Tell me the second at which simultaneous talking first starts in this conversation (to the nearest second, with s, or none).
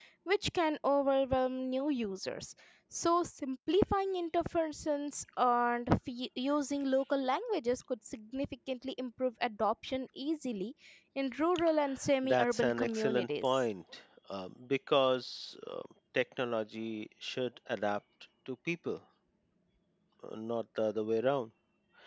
12 s